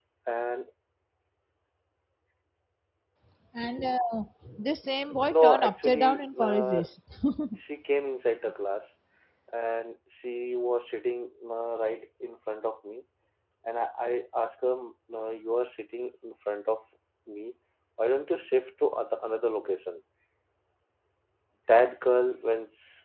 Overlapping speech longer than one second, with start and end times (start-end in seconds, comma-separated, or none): 5.3-6.8